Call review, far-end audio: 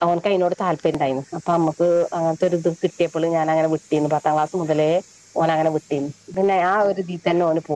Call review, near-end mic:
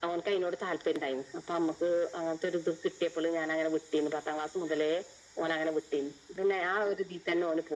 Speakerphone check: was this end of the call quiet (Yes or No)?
Yes